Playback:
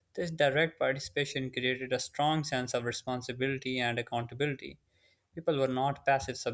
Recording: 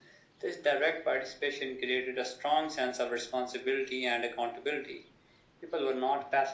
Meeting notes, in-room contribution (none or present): none